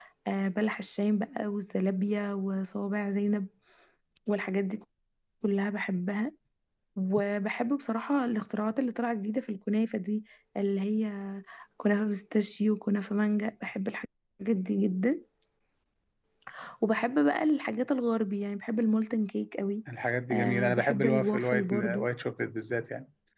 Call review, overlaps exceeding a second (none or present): present